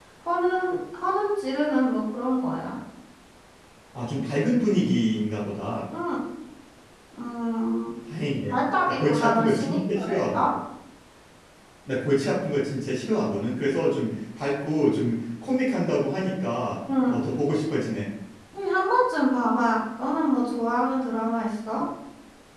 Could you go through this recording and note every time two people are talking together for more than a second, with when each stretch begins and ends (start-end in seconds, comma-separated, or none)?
8.5-10.5